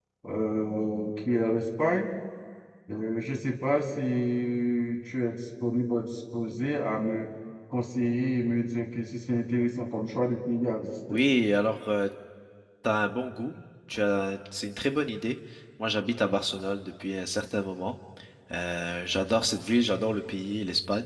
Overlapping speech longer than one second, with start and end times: none

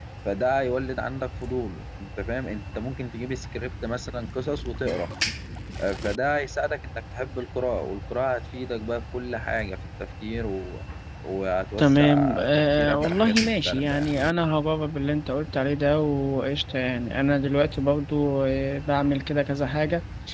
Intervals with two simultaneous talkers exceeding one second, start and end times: 11.8-14.1

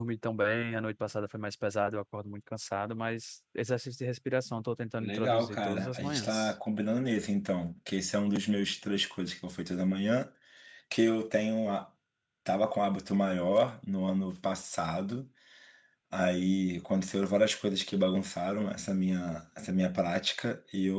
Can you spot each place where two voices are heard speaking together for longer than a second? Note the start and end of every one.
5.0-6.5

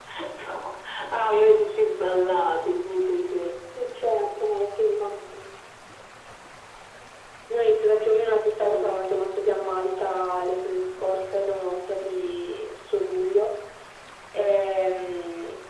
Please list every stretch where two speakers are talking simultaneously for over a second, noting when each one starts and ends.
none

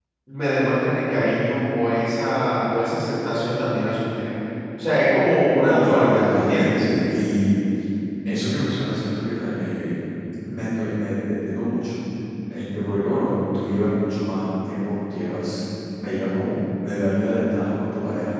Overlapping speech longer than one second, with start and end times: 5.6-6.8

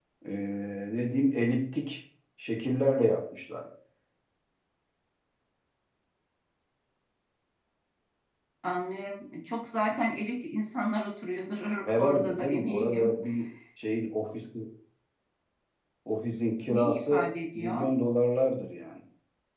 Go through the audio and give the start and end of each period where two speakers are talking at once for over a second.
11.8-13.2, 16.7-17.9

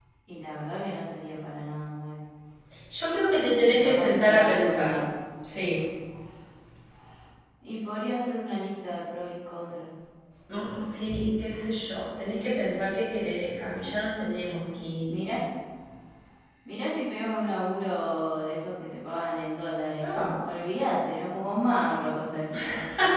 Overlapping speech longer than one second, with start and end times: 3.7-5.0

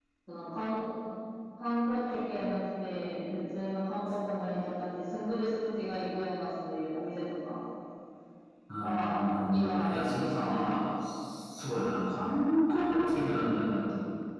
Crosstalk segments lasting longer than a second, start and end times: 8.8-10.9

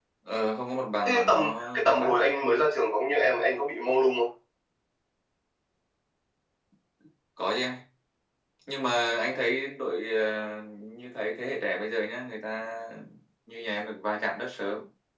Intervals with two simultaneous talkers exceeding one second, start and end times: 1.1-2.7

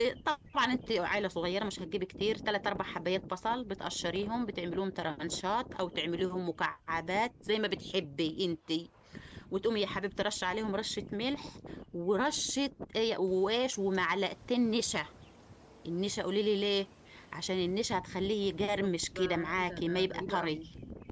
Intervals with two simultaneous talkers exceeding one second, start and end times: 18.8-20.6

